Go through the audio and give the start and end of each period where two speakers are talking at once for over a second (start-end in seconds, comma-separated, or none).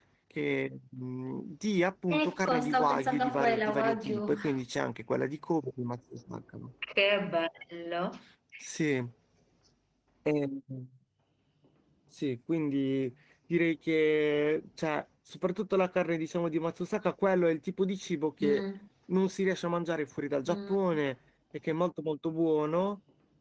2.1-4.3